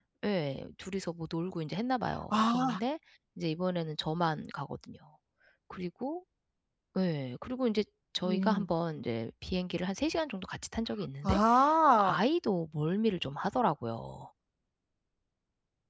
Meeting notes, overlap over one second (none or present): none